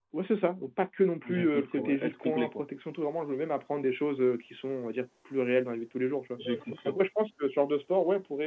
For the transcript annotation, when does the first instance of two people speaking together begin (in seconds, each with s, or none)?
1.3 s